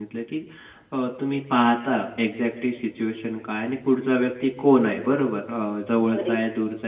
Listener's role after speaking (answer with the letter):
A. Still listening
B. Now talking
A